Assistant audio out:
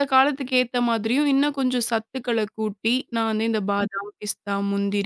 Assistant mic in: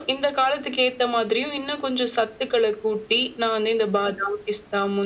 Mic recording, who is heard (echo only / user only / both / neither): echo only